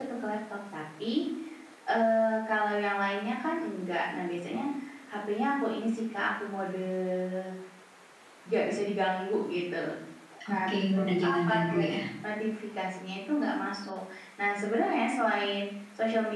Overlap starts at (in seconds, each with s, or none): 10.5 s